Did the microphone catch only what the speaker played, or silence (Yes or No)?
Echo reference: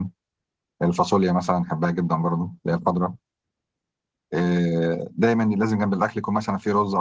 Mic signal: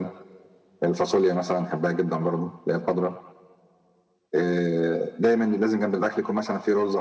Yes